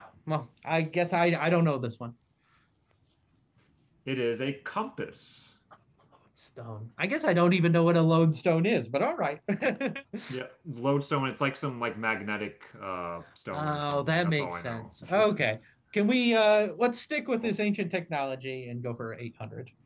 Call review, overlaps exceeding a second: present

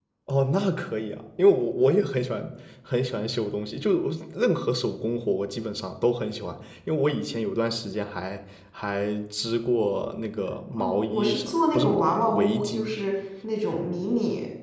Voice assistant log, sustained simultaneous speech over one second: present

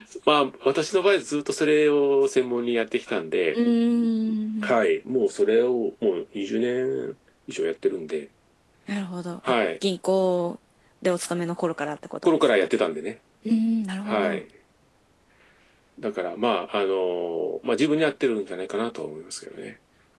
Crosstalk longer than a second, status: none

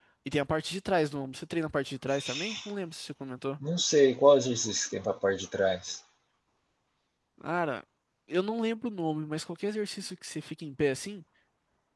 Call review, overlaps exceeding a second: none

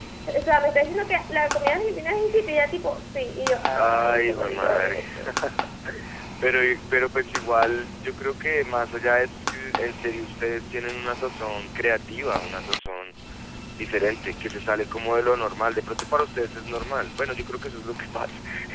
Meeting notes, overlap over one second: present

